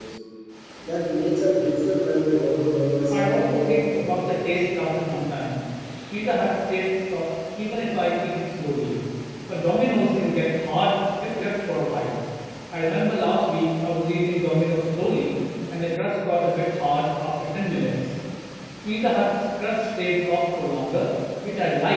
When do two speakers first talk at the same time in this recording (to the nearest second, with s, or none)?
3 s